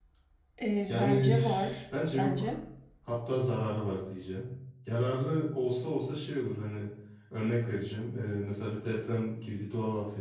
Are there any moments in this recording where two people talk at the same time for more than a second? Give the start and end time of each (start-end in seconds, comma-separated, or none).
0.9-2.5